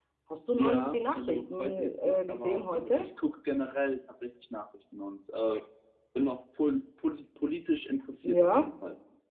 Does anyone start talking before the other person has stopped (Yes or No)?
Yes